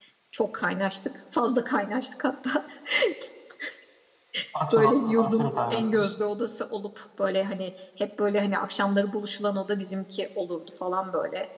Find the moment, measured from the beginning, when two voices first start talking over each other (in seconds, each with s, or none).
4.7 s